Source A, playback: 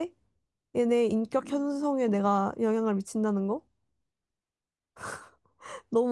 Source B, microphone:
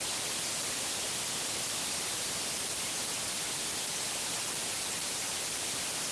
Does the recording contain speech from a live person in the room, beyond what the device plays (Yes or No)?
No